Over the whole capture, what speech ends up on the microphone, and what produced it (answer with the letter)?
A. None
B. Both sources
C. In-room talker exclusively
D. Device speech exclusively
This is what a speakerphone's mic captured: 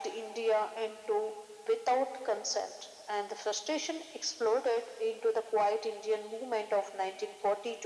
D